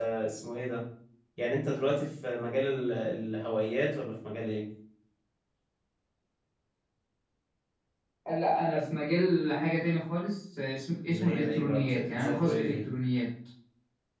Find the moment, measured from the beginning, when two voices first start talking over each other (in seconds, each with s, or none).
11.1 s